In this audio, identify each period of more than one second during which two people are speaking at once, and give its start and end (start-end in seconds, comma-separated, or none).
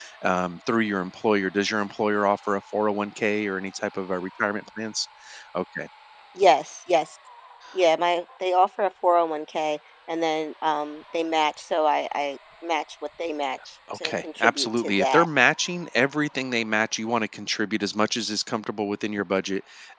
14.0-15.3